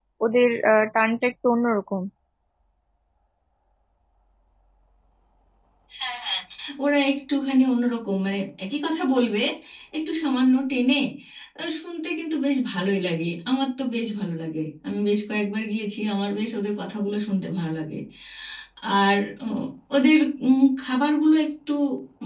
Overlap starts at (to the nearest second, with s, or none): none